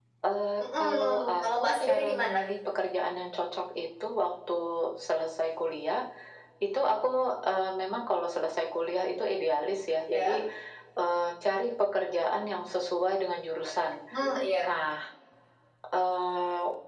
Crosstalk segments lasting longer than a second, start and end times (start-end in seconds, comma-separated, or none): 0.8-2.5